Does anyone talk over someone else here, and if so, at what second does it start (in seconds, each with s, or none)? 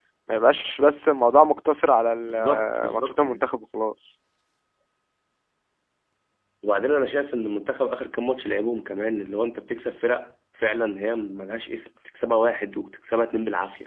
2.2 s